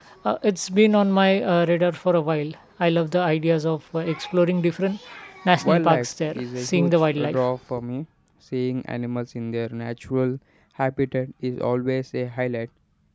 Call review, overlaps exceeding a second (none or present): present